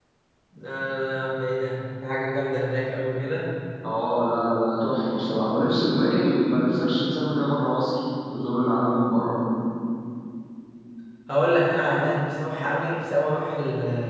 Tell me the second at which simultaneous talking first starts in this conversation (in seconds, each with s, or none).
none